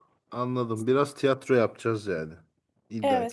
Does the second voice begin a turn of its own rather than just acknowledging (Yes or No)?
Yes